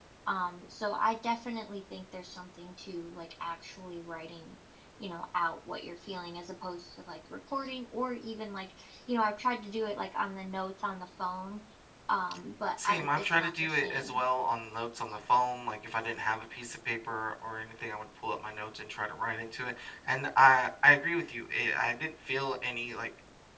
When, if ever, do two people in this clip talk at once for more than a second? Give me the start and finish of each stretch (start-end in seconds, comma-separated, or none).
12.8-14.2